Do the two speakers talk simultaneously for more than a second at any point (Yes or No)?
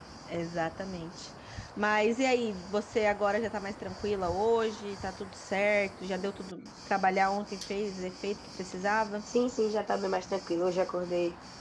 No